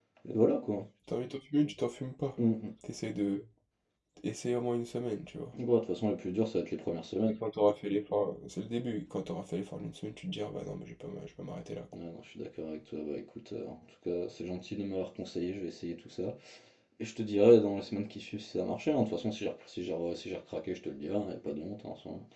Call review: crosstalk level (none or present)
none